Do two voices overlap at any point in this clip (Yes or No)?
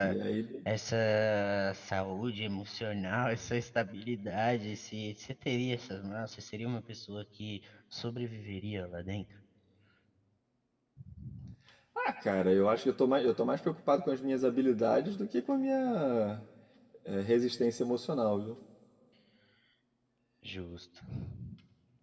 No